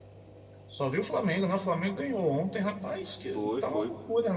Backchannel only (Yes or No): Yes